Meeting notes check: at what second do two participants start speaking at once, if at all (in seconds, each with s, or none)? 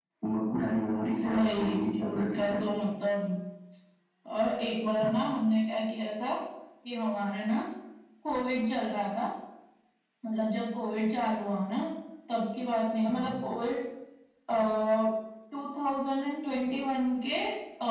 1.2 s